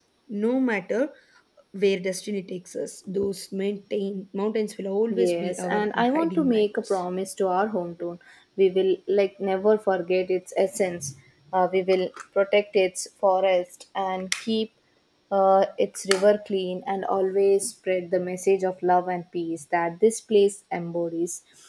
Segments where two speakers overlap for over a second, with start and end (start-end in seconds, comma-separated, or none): 5.1-7.0